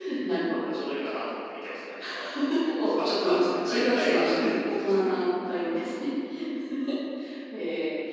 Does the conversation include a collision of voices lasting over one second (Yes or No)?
Yes